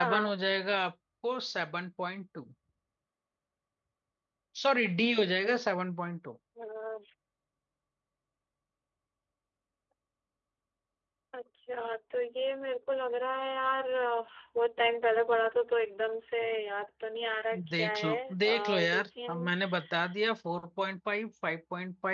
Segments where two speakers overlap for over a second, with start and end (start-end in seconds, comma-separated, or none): 17.8-19.5